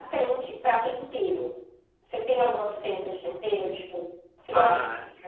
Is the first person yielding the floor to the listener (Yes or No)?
Yes